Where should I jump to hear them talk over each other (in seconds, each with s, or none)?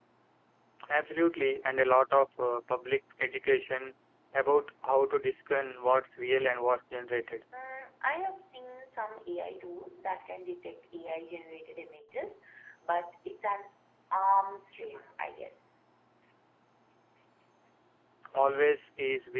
none